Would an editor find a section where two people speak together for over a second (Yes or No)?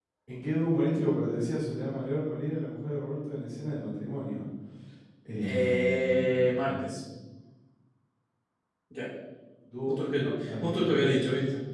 Yes